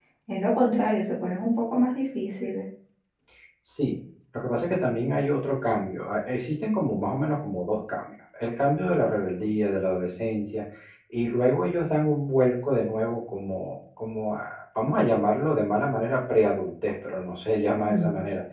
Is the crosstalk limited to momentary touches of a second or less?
Yes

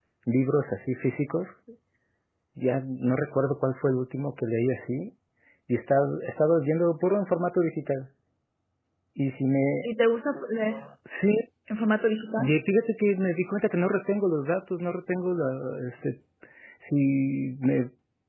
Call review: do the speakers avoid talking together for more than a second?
Yes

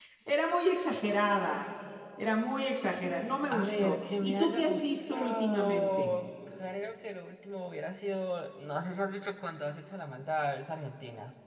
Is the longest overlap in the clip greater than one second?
Yes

